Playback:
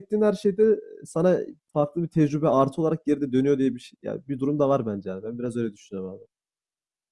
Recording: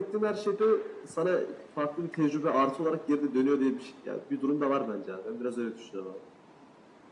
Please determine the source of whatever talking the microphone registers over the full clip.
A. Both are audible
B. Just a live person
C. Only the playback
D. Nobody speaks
C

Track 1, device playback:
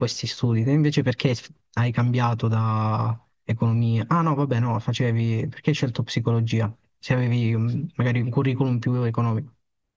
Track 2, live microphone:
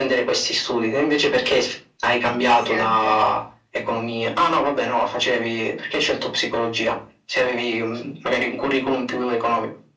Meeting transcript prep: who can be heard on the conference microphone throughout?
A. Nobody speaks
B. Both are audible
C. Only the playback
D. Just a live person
B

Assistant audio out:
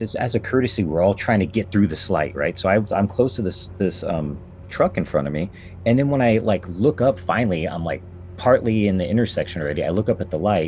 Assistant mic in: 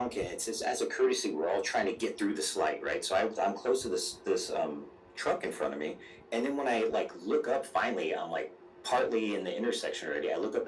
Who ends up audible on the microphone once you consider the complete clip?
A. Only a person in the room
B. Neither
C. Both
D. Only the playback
D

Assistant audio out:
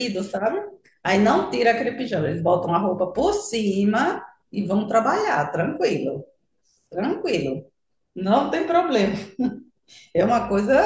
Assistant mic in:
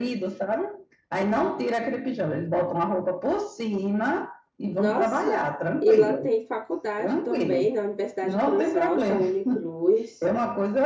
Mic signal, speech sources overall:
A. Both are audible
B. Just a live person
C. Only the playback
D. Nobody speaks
A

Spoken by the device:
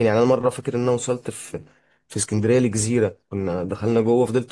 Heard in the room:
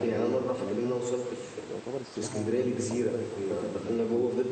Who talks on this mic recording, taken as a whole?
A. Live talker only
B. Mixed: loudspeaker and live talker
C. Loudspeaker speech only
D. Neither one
B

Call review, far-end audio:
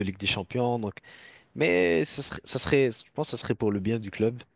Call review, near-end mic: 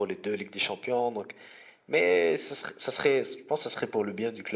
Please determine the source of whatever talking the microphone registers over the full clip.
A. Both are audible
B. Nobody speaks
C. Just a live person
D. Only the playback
D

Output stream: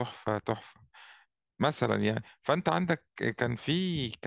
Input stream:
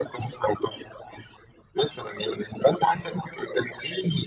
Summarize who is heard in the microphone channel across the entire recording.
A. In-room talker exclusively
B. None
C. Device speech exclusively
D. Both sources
C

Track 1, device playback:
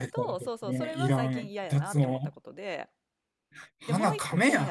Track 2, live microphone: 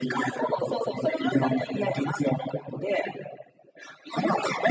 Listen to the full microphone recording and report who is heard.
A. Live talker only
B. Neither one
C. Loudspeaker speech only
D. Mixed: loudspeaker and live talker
C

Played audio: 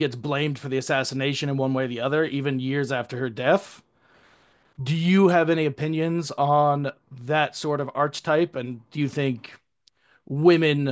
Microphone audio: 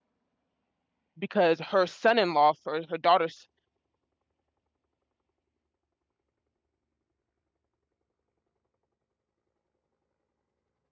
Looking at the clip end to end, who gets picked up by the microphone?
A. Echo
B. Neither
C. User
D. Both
C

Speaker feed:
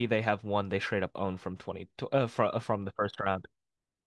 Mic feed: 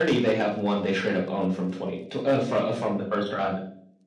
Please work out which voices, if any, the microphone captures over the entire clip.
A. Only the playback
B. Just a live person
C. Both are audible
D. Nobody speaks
A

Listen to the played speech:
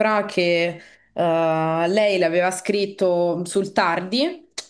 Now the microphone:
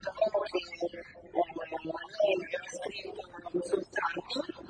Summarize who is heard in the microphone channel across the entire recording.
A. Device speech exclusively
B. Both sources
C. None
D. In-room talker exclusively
A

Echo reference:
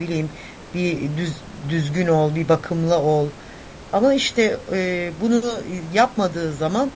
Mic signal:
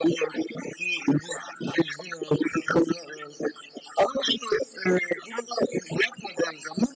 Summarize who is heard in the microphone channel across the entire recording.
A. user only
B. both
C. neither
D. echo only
D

